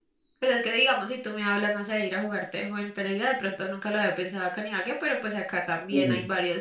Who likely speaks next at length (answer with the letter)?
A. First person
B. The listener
A